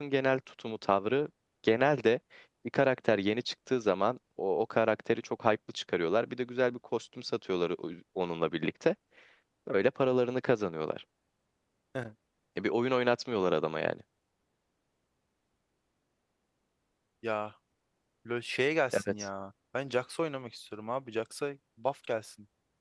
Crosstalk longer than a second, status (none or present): none